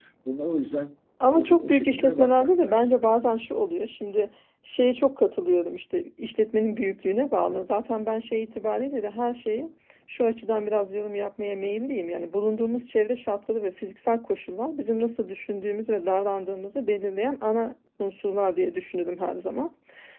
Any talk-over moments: Yes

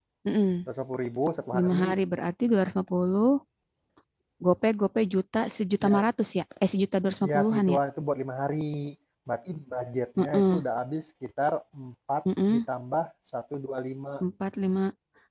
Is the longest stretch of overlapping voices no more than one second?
Yes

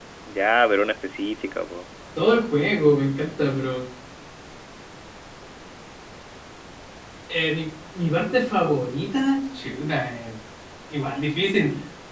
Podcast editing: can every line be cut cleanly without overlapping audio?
Yes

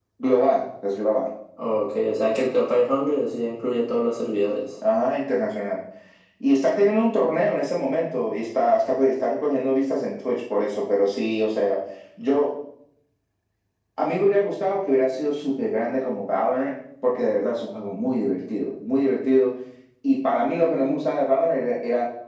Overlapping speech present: No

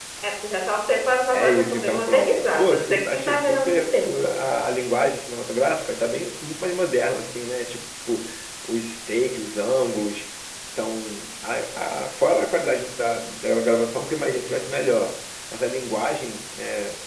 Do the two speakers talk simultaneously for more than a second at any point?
Yes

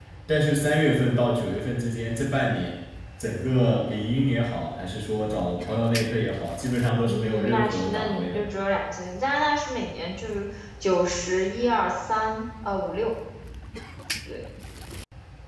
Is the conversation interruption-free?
No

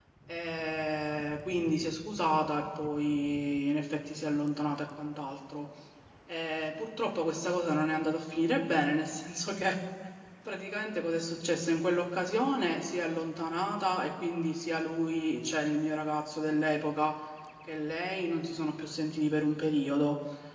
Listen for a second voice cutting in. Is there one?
No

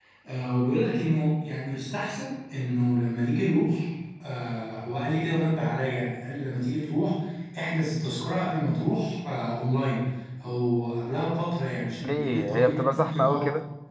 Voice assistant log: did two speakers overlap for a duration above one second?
Yes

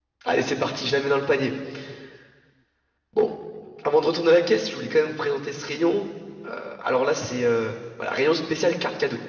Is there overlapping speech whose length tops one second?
No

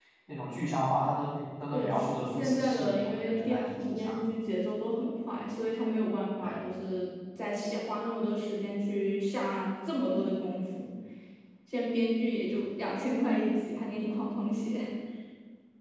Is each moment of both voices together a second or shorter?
No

